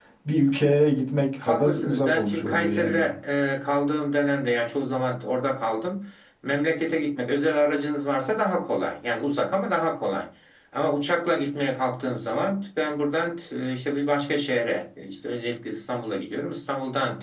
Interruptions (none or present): present